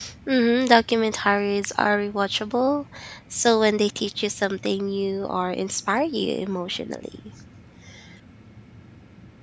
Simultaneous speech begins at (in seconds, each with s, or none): none